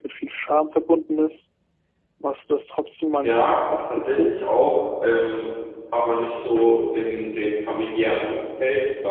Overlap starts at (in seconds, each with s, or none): 3.2 s